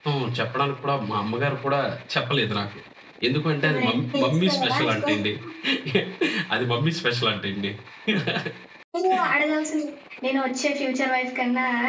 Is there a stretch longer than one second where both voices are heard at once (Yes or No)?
Yes